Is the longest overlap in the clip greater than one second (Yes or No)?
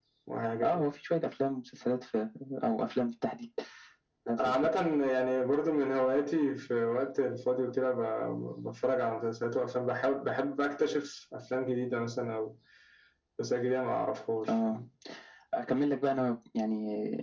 No